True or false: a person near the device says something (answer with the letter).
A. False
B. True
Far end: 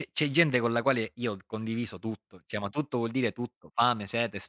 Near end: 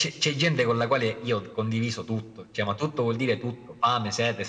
A